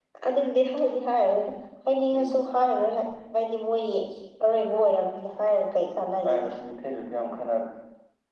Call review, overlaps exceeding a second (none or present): none